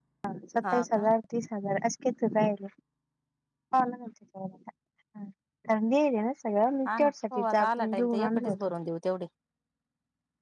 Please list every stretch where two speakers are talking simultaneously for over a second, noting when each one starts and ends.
6.9-8.6

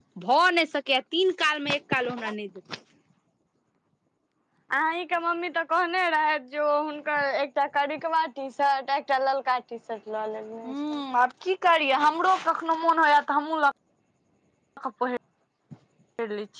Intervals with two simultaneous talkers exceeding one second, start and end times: none

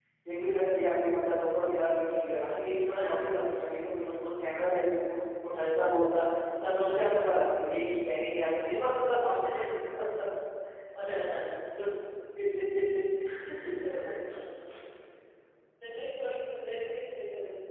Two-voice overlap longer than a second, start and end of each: none

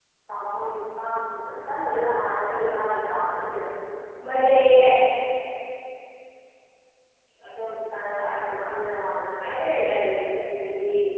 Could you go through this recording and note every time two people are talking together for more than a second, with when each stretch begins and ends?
none

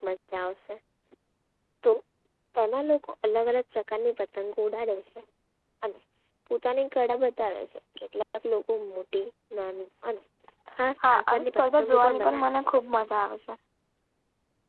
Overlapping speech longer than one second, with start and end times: 11.1-12.7

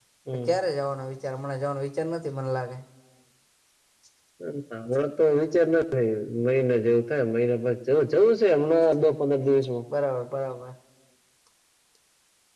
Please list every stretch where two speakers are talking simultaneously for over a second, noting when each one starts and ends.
none

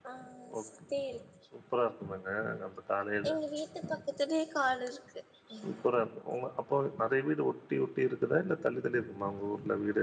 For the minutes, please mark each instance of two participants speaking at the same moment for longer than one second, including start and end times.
none

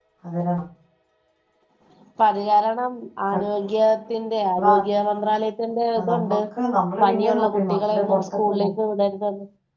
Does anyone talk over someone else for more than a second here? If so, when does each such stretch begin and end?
7.0-8.7

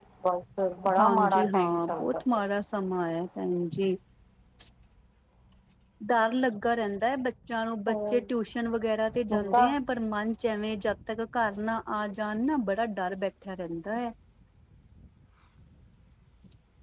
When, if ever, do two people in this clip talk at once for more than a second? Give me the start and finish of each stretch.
1.0-2.4

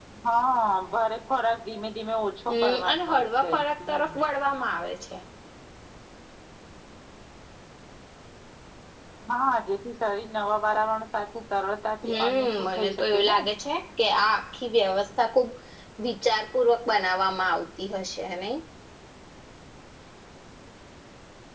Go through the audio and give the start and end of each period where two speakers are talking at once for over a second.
2.5-4.1, 12.1-13.4

